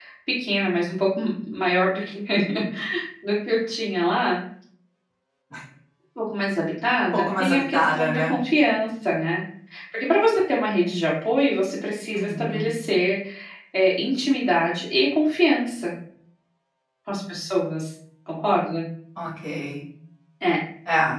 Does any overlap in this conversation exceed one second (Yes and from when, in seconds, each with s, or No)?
Yes, from 7.1 s